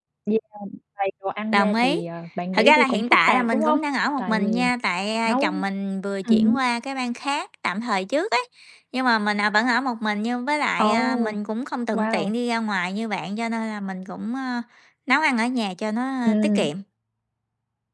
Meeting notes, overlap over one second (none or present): present